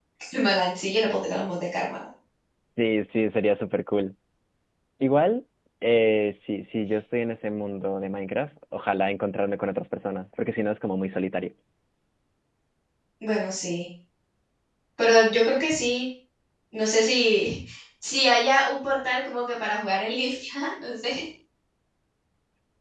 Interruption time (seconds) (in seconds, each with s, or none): none